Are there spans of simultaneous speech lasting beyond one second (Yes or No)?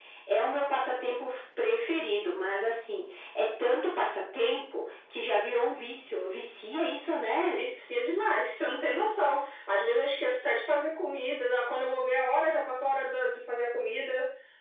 No